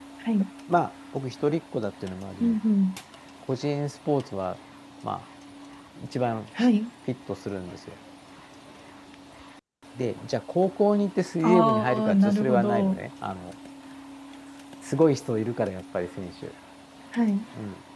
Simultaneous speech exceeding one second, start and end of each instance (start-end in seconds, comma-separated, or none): 11.4-13.0